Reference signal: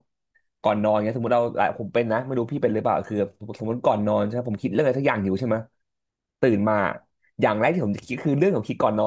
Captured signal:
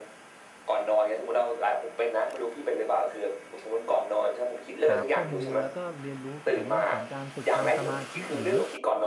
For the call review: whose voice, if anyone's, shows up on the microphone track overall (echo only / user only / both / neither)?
both